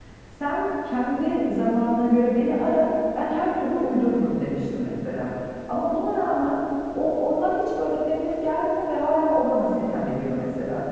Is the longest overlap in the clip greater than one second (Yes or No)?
No